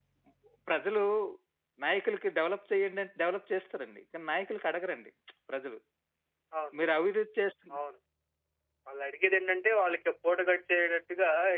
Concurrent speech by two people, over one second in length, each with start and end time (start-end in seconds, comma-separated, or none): none